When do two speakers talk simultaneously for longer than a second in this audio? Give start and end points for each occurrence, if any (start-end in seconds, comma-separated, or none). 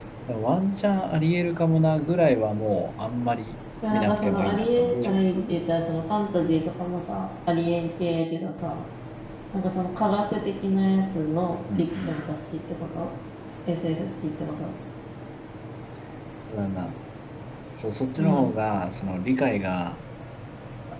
3.9-5.2